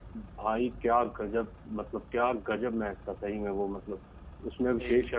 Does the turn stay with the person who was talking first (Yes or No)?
Yes